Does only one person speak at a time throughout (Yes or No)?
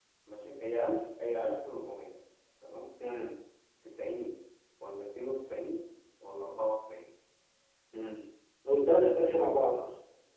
Yes